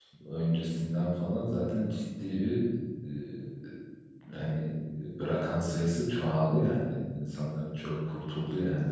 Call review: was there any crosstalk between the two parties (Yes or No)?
No